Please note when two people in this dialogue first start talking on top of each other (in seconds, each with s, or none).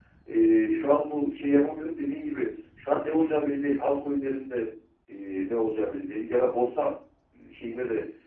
none